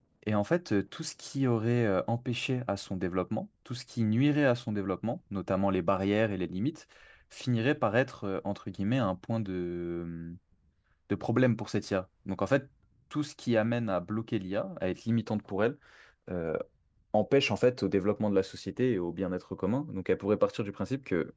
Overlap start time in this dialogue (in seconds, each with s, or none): none